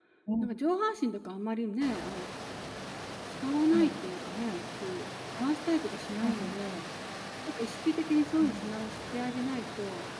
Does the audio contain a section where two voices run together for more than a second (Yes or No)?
No